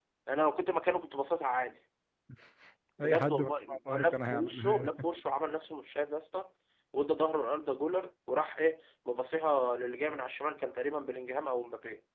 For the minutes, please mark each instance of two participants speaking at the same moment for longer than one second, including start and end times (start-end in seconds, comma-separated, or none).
3.0-4.9